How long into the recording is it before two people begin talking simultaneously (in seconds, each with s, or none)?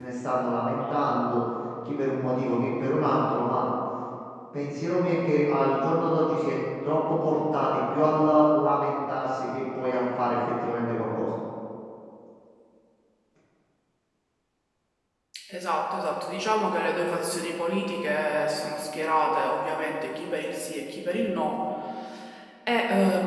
none